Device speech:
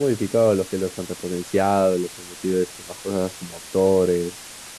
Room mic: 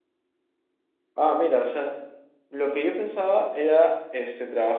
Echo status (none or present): none